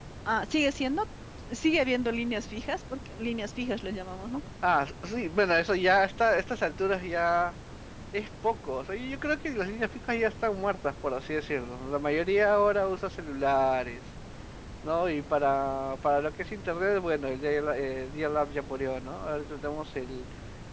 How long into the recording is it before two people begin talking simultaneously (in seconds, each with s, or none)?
none